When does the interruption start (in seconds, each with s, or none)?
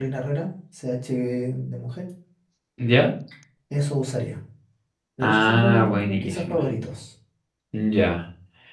5.2 s